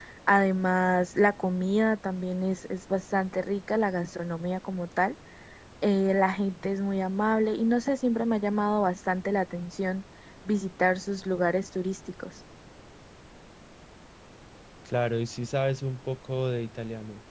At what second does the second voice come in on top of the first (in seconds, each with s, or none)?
none